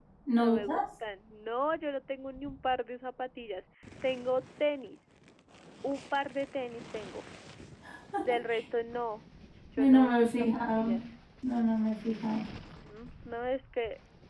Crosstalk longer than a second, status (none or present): present